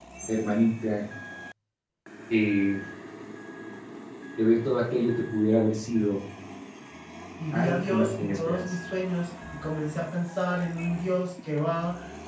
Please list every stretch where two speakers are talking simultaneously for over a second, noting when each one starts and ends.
7.5-8.7

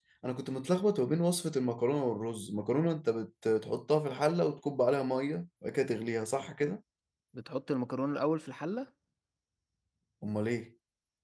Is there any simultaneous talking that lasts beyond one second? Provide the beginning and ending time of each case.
none

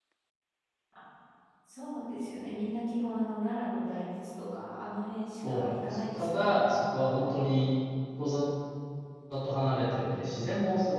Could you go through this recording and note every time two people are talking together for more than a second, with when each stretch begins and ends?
5.4-7.5

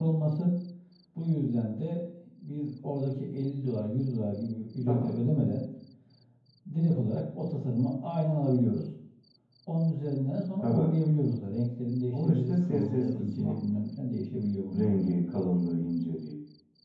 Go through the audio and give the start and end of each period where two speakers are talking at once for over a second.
12.1-13.5

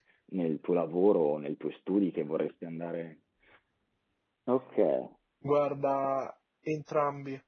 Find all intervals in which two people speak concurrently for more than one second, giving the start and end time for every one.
none

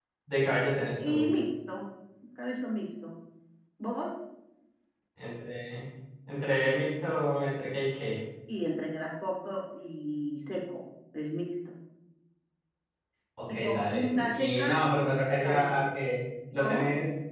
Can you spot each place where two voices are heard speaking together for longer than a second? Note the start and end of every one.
13.5-14.8

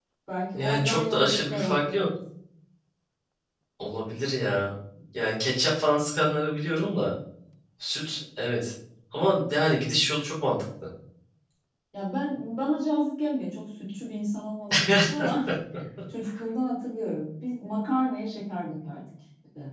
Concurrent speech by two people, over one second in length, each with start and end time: 0.5-2.1

